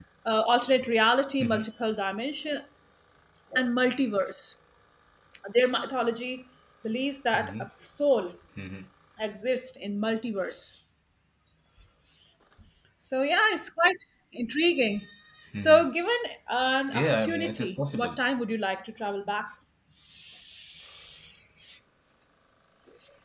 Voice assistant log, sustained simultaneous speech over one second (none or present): present